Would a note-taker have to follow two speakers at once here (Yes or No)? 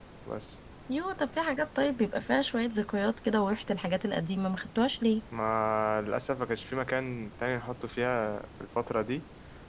No